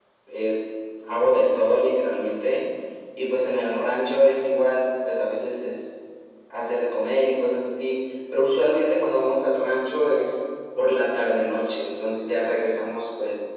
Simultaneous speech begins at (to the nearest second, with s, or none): none